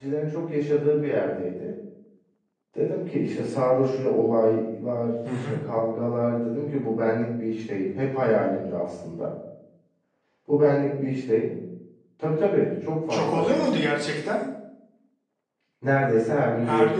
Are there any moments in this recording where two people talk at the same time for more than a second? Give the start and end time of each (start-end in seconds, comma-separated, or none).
none